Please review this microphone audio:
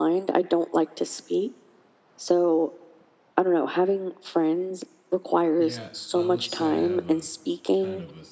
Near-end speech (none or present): present